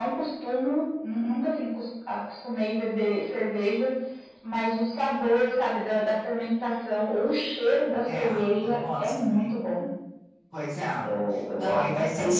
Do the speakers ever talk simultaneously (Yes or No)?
Yes